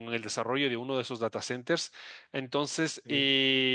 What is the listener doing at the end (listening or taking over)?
listening